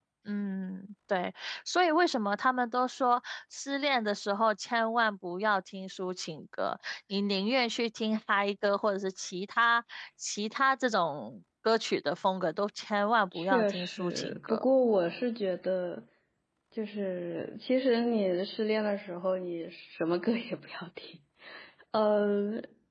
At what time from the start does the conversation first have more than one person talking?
13.3 s

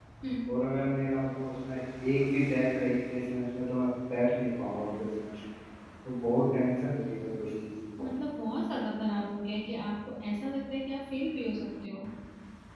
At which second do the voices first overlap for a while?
none

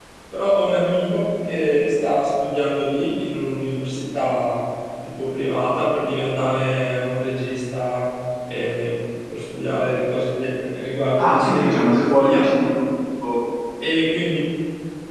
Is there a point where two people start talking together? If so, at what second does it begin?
11.2 s

